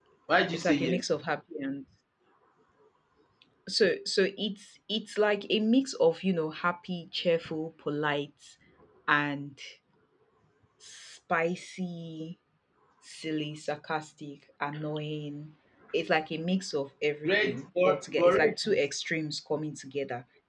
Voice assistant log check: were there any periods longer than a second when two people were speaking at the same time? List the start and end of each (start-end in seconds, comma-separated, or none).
17.2-18.6